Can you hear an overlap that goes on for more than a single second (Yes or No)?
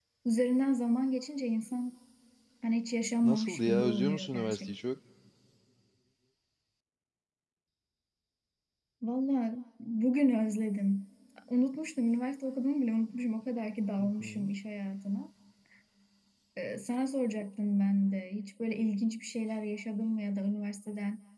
Yes